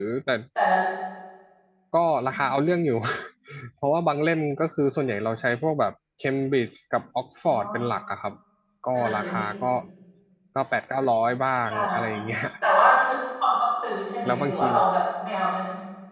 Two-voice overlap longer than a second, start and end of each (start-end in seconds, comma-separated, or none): none